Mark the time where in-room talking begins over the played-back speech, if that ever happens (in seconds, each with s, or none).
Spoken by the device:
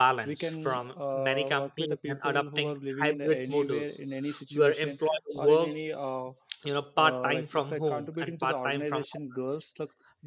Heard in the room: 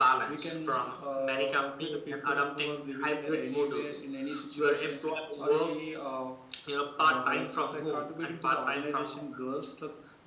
none